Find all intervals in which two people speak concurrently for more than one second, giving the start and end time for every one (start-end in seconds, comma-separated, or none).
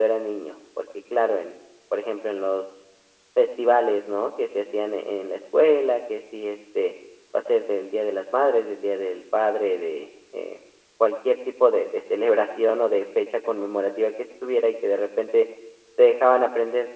none